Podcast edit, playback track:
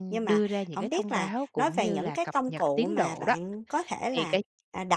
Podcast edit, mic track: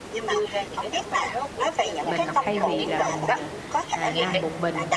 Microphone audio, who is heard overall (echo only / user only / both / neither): both